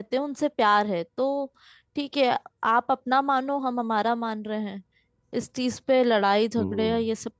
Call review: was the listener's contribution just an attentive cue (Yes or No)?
Yes